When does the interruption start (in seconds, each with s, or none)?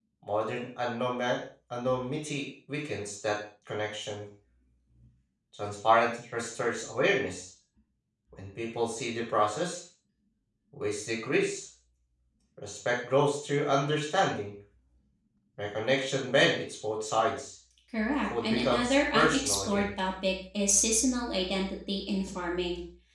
18.4 s